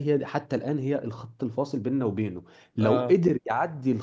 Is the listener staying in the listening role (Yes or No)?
Yes